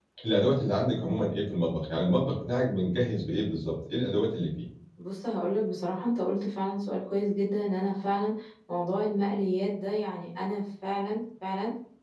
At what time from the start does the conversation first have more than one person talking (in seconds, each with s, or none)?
none